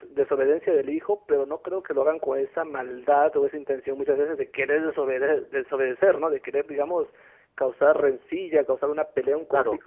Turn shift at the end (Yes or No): No